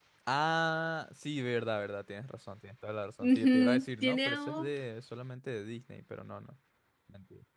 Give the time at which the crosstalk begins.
3.2 s

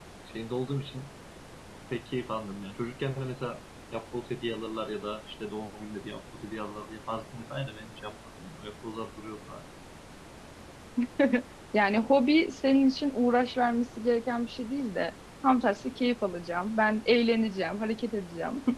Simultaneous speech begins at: none

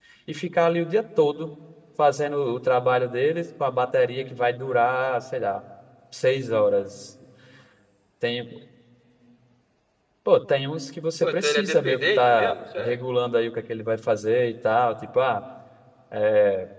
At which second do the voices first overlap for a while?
11.2 s

